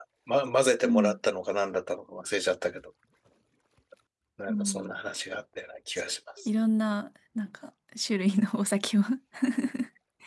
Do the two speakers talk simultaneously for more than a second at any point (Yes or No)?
No